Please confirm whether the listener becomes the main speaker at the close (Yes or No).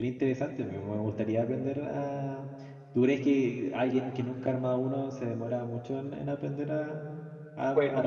Yes